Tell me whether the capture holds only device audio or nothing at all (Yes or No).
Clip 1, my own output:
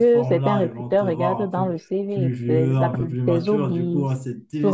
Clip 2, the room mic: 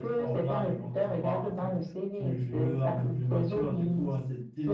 Yes